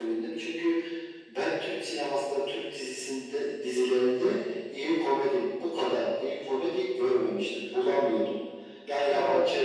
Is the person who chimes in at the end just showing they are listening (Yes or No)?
Yes